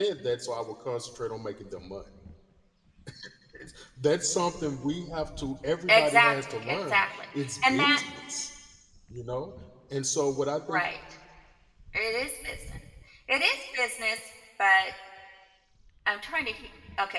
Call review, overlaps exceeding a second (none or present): present